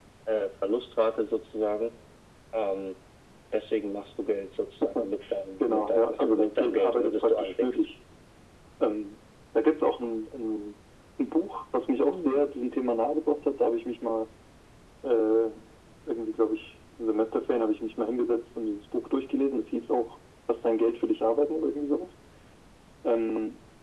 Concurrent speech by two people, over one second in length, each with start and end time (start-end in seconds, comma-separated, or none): 5.6-7.8